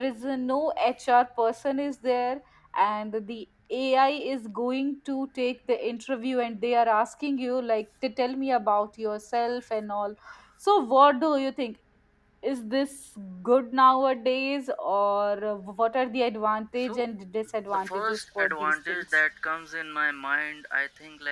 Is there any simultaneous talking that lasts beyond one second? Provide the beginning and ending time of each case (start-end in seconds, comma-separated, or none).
17.7-19.0